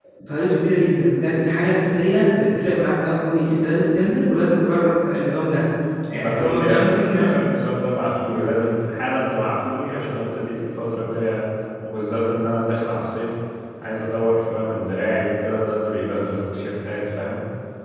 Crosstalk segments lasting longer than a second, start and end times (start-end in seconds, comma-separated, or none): 6.1-7.3